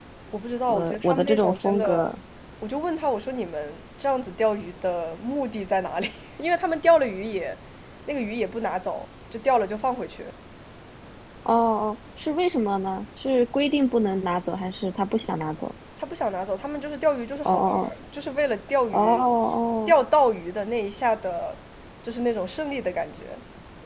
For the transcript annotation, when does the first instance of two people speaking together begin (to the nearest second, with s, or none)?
1 s